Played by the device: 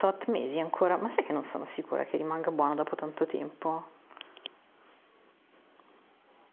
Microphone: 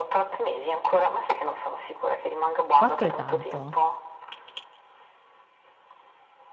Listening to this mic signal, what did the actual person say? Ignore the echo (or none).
4 è tanto.